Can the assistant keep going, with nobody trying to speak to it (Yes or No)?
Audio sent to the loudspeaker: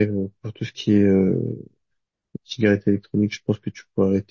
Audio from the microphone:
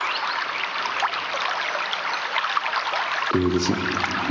No